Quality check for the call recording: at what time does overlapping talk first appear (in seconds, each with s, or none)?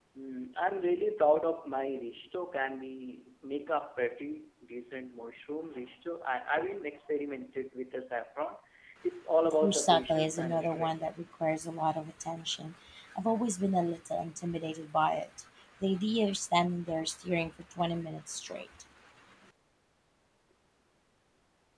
9.6 s